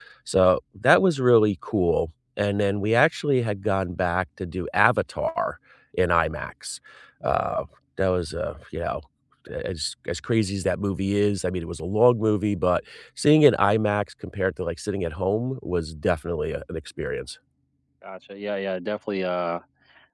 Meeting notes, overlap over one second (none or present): none